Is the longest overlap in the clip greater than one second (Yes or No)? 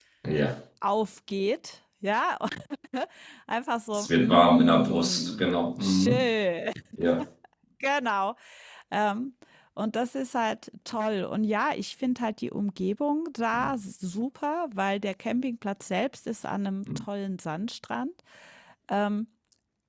Yes